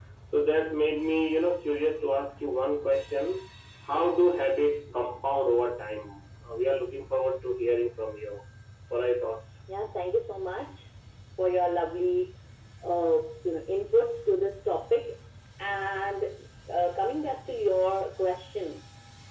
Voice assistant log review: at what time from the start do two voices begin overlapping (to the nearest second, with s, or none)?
none